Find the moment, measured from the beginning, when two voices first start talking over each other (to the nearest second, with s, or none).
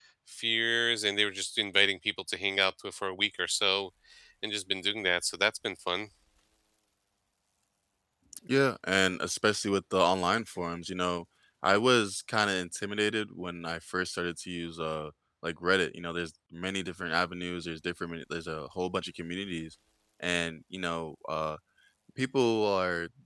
none